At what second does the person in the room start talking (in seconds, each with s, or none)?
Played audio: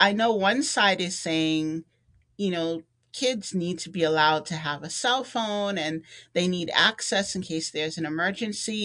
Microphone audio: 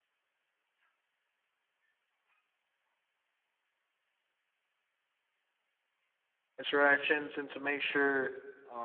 6.6 s